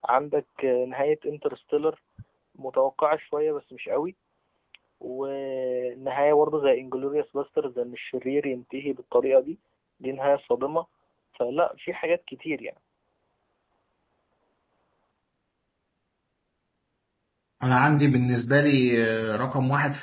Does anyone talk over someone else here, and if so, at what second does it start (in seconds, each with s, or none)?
none